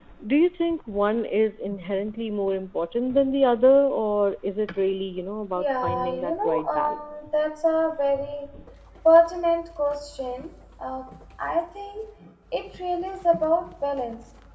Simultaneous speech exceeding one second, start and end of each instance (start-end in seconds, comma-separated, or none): 5.6-7.2